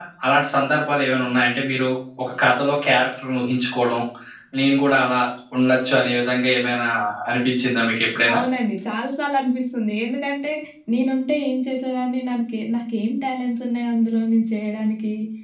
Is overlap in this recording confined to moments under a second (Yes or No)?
Yes